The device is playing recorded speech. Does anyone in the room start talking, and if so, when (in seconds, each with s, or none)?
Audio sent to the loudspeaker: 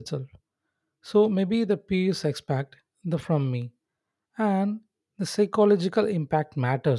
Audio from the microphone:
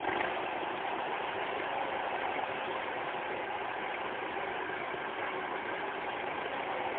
none